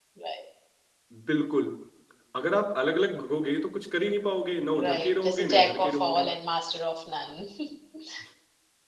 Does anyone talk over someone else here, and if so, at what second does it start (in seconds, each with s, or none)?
4.8 s